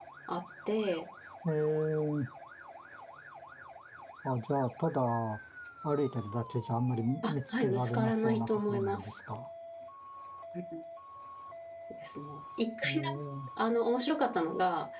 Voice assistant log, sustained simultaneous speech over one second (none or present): present